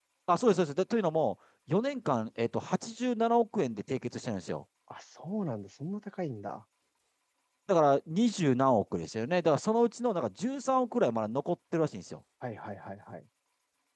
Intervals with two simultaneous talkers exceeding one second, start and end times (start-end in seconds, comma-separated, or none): none